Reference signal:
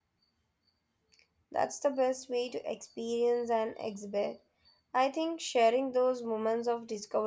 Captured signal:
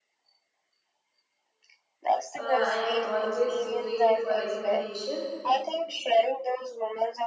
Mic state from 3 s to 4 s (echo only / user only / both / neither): both